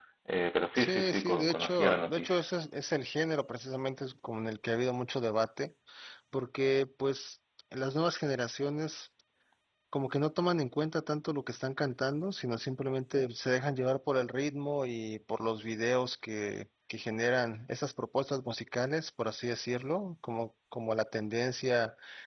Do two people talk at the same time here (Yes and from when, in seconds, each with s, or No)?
Yes, from 0.8 s